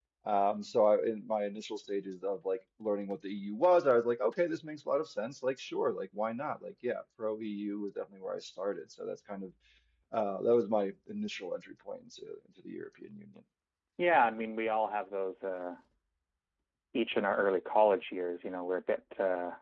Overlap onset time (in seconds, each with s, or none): none